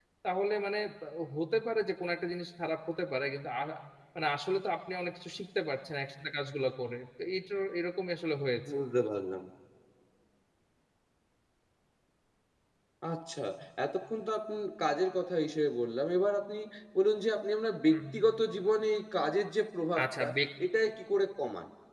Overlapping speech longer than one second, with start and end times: none

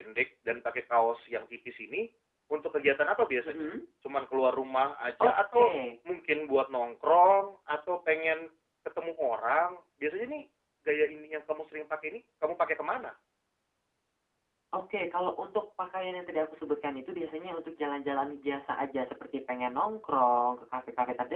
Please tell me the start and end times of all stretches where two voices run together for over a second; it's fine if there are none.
none

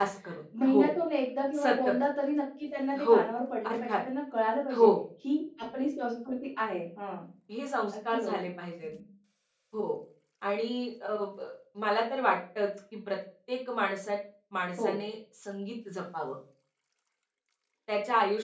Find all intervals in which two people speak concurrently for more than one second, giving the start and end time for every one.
none

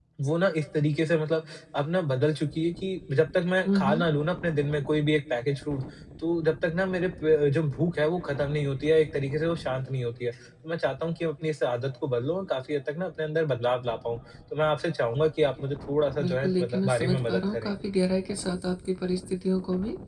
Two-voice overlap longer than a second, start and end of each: 16.2-17.7

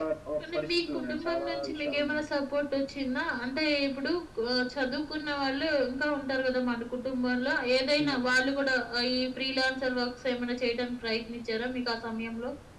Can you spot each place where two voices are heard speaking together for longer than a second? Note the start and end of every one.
0.5-2.4

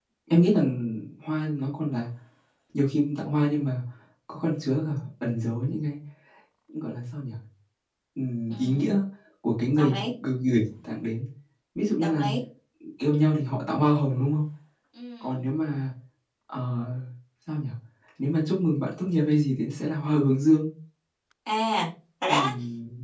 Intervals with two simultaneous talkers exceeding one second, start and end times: none

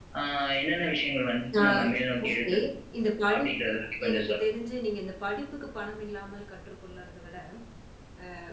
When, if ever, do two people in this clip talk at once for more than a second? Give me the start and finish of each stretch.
none

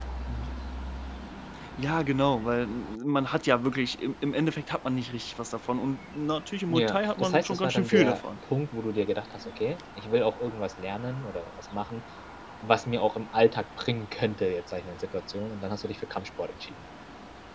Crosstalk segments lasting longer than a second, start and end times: 6.7-8.2

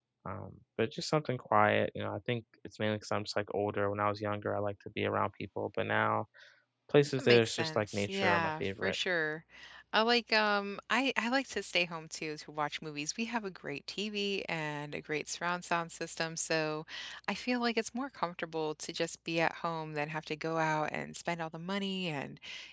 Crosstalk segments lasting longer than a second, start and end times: 7.2-9.0

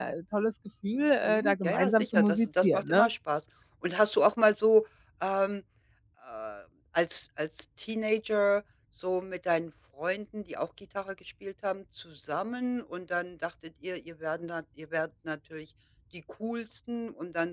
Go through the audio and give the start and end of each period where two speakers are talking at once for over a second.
1.2-3.1

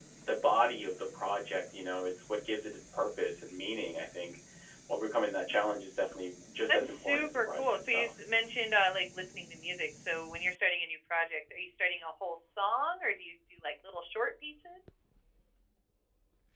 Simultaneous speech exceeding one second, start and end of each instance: 6.7-8.1

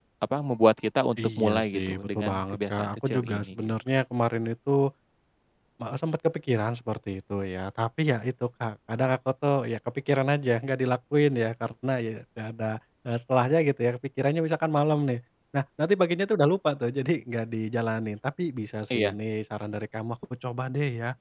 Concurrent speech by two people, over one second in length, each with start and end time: 1.4-3.7

